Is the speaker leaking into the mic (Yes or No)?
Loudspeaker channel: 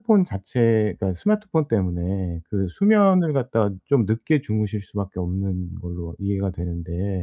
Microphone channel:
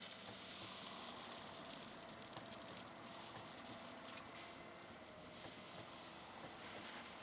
No